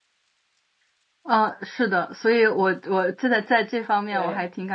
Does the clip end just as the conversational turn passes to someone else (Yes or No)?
No